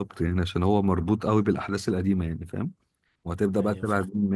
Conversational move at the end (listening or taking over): listening